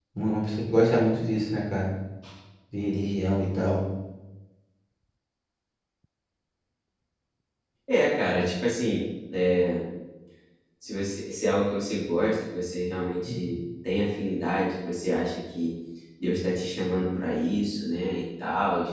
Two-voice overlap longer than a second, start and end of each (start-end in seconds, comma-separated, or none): none